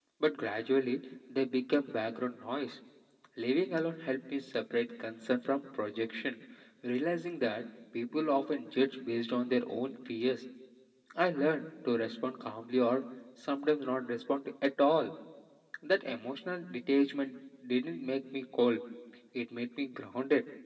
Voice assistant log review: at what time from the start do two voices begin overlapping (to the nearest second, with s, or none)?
none